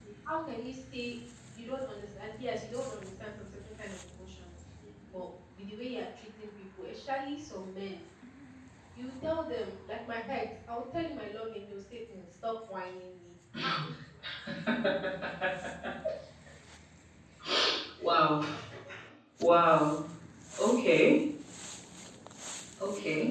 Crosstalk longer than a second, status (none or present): none